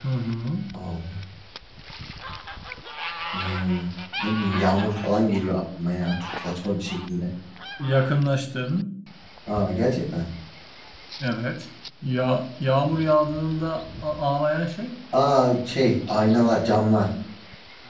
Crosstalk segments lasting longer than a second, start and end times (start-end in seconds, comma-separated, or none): none